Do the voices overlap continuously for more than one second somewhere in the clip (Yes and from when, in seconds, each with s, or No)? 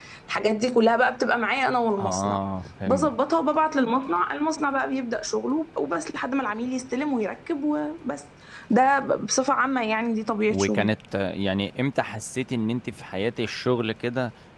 No